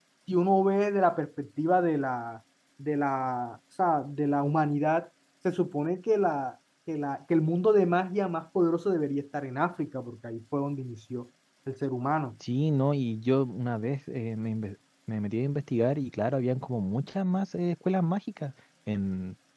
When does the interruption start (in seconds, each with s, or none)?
none